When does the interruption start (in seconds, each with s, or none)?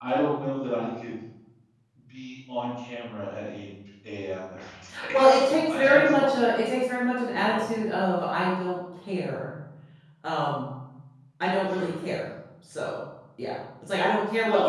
5.1 s